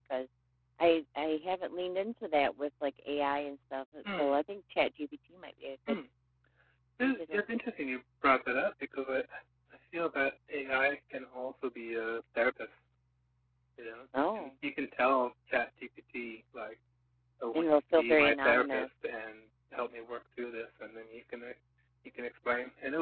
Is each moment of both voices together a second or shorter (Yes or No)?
No